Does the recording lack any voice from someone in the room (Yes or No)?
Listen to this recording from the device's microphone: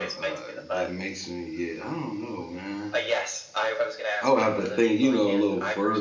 No